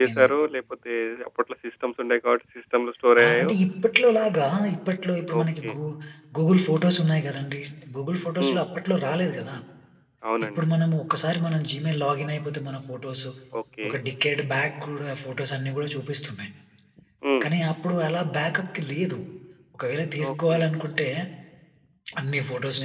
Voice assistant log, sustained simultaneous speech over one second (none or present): none